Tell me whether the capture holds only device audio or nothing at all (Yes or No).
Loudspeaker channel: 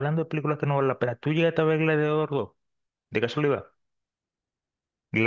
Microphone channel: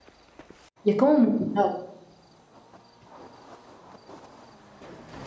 No